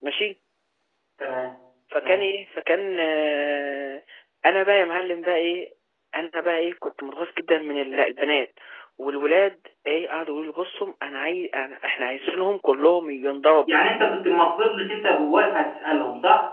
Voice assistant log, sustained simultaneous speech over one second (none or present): none